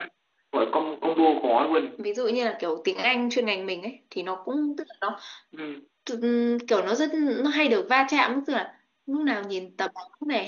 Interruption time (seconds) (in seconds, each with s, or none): none